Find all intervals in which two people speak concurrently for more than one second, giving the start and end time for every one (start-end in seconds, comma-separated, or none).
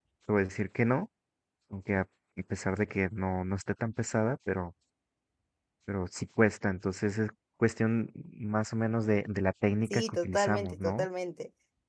9.9-11.1